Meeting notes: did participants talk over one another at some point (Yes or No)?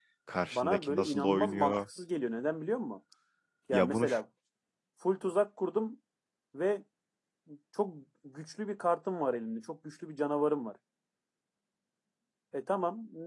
Yes